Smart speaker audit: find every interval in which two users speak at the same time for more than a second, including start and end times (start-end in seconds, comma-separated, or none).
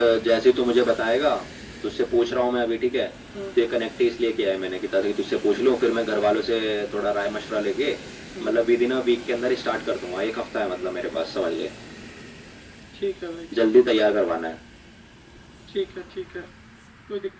none